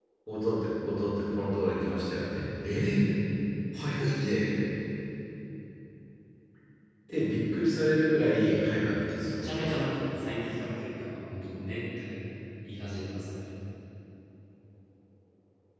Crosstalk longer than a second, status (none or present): none